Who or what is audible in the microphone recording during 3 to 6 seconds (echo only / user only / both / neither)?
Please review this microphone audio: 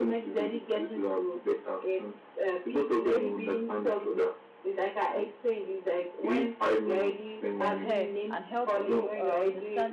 echo only